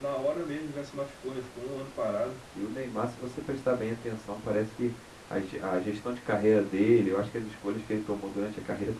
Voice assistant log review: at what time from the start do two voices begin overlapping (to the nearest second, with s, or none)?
none